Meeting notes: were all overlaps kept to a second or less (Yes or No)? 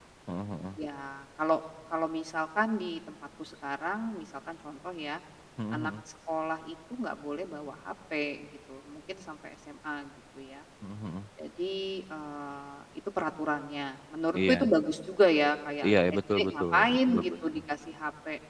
No